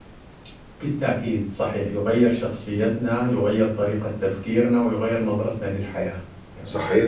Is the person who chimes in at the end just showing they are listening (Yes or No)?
No